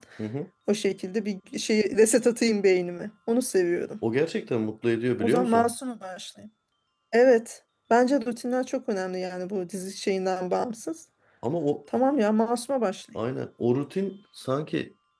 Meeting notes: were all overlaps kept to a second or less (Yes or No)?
Yes